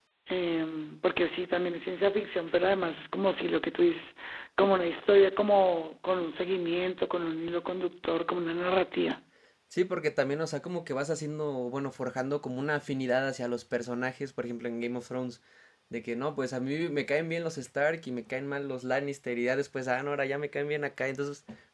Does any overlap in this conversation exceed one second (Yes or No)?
No